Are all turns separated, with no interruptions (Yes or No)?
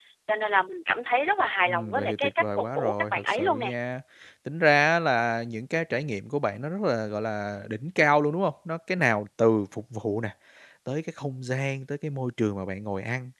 No